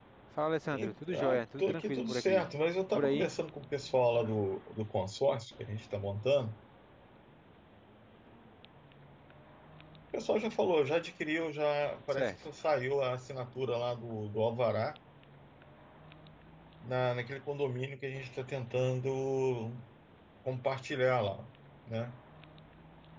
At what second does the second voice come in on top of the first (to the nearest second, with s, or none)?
1 s